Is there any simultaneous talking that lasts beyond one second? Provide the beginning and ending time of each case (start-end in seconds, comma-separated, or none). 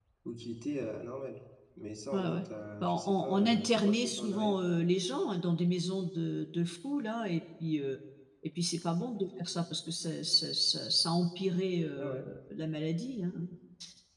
2.8-4.6